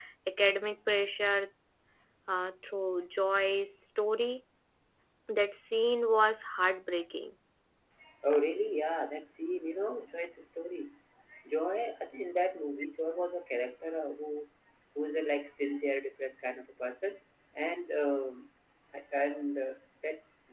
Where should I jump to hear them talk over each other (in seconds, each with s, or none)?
none